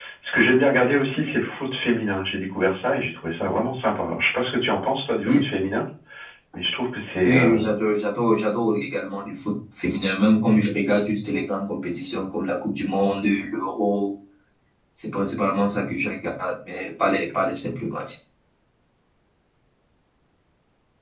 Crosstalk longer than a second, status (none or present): none